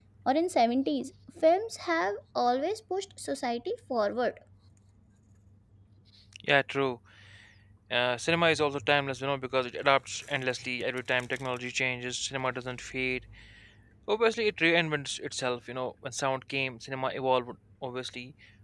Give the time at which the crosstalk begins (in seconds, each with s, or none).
none